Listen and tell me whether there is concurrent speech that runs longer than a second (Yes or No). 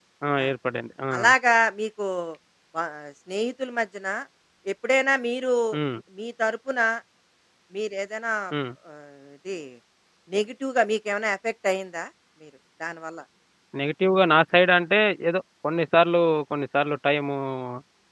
No